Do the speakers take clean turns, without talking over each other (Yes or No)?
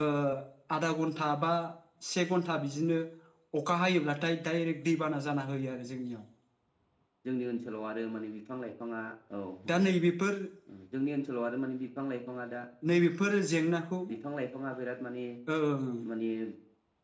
Yes